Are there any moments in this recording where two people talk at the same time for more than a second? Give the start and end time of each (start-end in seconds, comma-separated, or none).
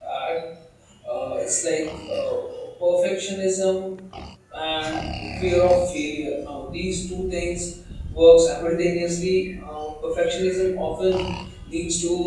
none